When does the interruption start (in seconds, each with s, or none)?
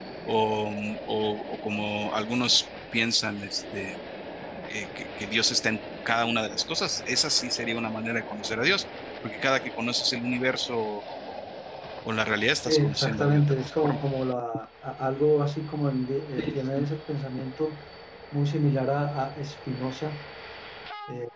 12.7 s